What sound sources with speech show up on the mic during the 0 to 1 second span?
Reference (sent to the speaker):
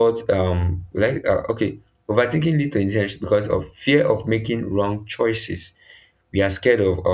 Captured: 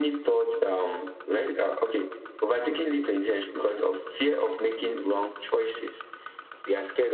echo only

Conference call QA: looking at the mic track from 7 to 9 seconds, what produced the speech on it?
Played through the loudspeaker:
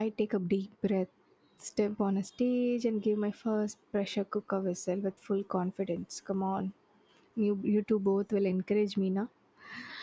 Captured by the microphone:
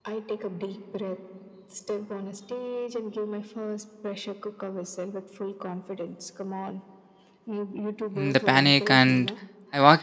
both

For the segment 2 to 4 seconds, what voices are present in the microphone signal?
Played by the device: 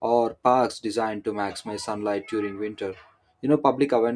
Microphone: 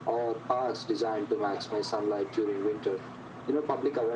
echo only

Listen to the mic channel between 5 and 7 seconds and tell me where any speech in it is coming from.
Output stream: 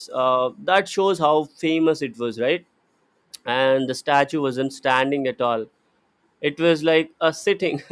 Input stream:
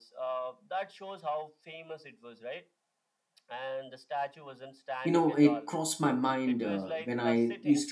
both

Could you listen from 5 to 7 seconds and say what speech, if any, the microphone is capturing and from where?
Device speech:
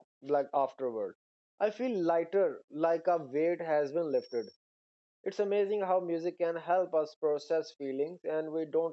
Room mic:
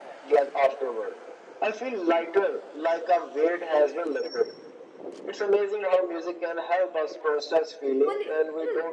echo only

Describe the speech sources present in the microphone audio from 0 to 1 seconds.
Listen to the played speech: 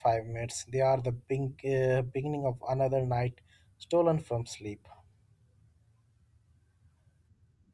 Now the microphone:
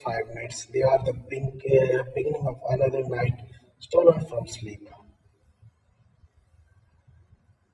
echo only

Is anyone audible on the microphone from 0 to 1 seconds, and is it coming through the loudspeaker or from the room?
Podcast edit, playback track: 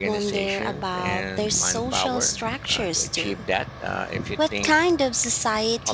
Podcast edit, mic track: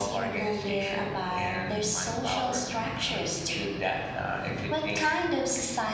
echo only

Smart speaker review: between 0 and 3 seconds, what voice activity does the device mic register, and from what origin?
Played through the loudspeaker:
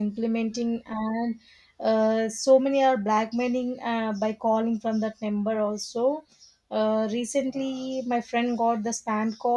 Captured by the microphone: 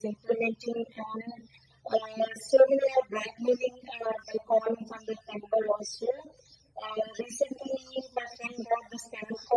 echo only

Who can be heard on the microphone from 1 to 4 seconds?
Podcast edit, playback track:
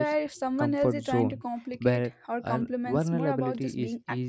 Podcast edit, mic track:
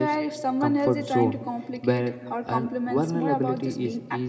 echo only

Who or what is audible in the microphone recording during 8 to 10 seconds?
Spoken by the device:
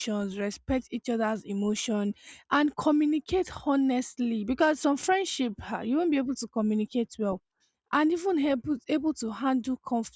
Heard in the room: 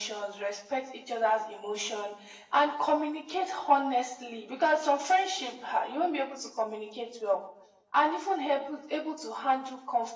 echo only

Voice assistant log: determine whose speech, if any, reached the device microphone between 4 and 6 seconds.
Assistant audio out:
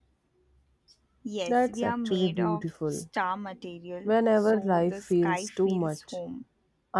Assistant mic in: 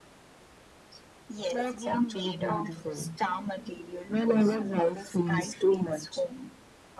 echo only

